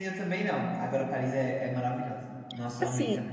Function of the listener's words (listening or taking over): taking over